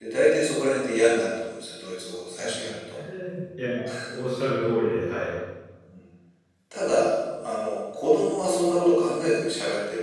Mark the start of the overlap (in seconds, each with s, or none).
none